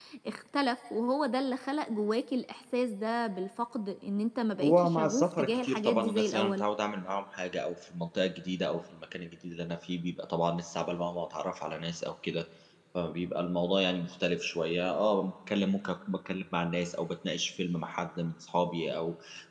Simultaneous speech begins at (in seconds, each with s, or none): 4.6 s